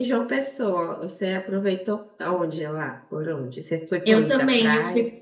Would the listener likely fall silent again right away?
No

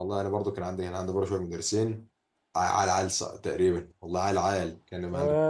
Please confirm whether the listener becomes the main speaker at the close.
Yes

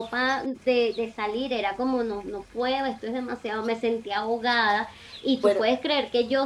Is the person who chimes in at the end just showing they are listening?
Yes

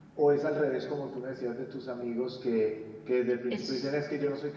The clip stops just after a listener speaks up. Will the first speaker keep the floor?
Yes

